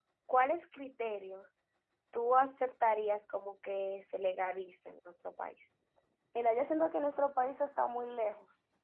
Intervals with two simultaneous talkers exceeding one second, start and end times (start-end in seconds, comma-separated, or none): none